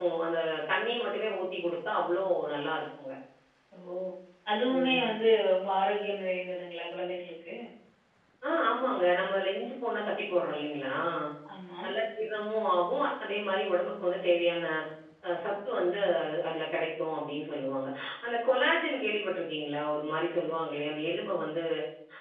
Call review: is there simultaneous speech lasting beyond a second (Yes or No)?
No